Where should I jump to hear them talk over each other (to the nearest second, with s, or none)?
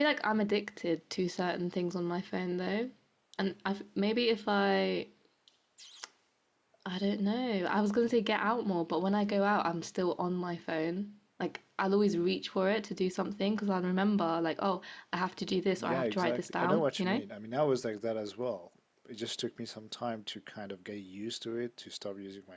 16 s